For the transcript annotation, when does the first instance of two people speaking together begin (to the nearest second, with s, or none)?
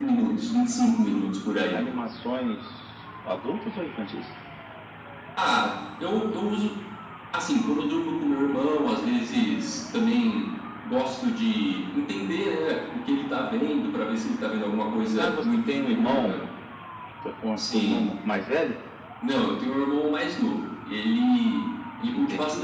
15 s